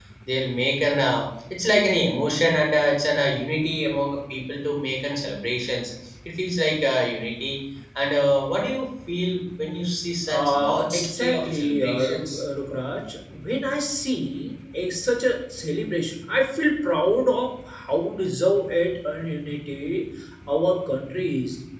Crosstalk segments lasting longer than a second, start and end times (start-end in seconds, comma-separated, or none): 10.3-12.4